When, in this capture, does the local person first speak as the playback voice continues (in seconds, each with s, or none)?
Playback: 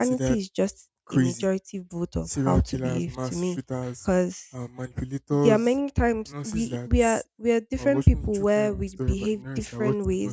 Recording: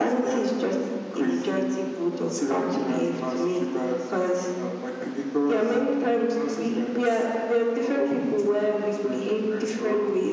none